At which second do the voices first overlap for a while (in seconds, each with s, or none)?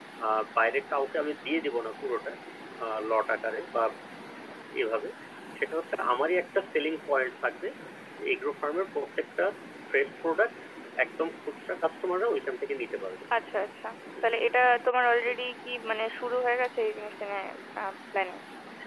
none